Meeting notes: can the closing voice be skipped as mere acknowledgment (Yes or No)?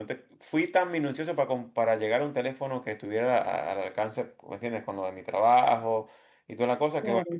Yes